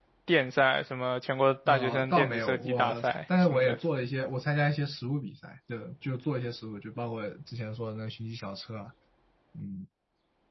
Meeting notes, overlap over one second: present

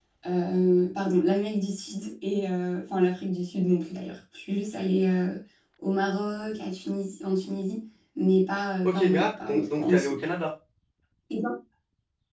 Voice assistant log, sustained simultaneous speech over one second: present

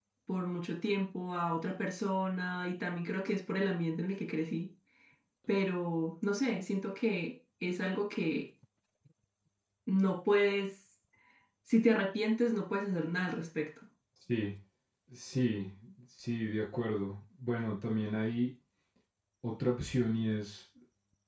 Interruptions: none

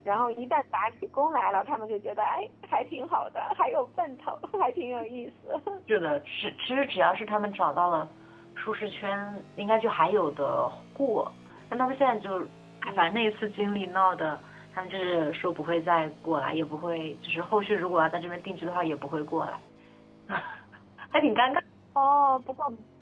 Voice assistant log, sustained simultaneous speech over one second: none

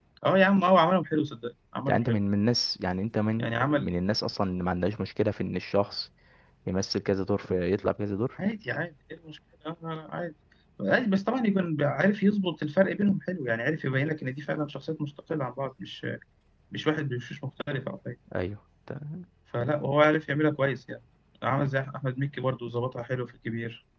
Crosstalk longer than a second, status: none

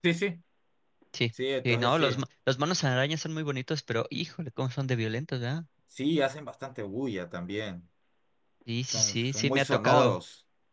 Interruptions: present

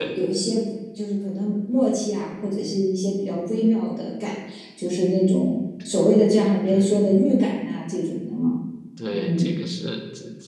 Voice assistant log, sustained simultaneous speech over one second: none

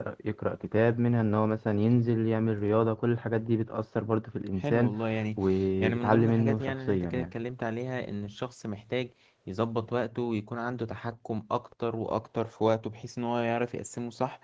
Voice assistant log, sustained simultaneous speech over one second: present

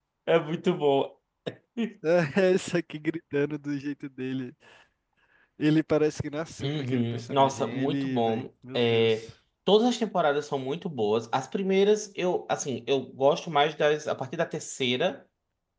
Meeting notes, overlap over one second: present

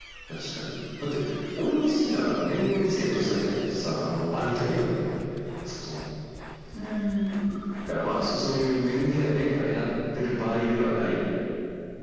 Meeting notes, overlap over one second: present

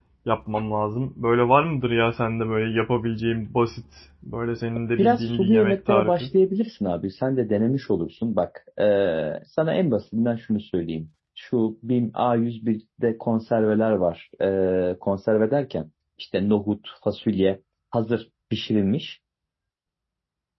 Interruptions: present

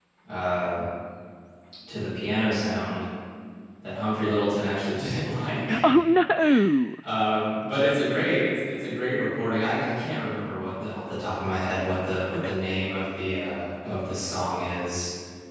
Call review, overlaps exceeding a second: none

